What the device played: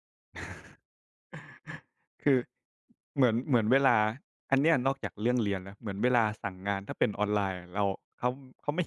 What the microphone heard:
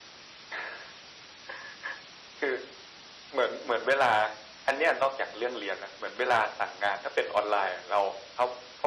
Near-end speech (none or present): none